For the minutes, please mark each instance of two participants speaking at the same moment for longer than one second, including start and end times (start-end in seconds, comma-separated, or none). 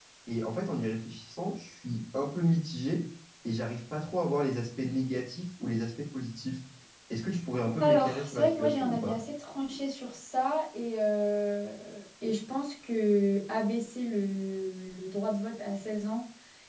7.8-9.2